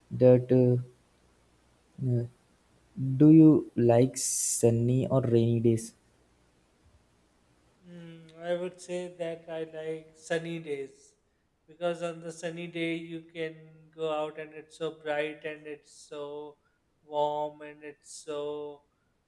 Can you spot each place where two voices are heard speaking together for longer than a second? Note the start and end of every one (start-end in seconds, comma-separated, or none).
none